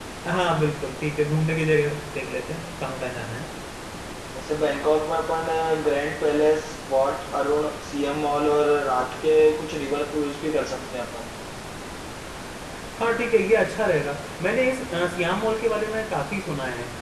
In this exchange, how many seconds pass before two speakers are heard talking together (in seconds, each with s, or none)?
none